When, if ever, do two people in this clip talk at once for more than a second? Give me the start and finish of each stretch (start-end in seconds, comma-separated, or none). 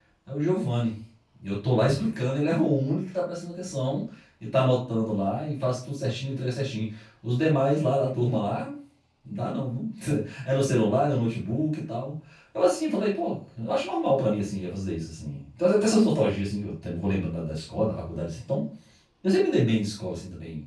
none